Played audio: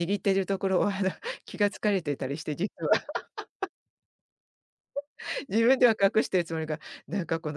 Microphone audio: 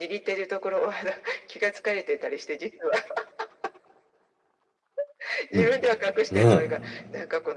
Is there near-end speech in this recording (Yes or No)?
Yes